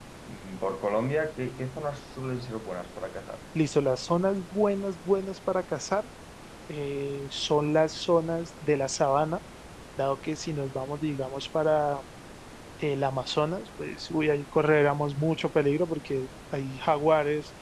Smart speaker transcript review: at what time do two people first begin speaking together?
none

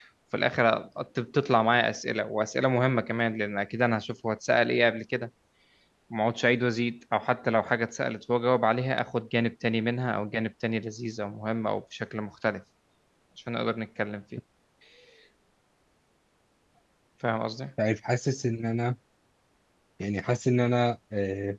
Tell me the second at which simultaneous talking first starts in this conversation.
none

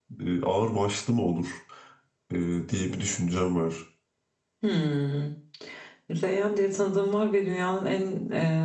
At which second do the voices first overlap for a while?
none

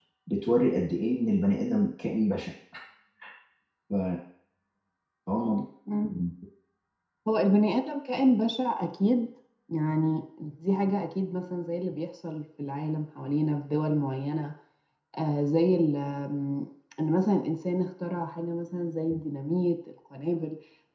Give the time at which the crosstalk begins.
none

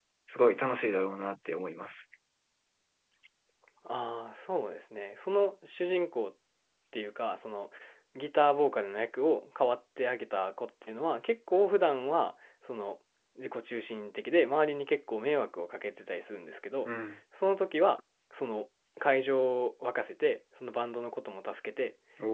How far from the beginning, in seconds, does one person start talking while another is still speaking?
none

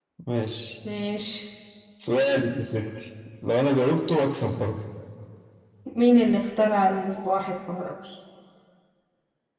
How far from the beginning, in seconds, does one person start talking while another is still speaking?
none

